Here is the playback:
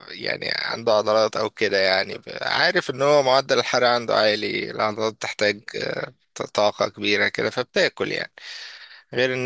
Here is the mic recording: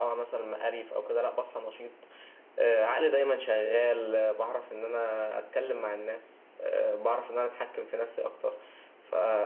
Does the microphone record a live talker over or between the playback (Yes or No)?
Yes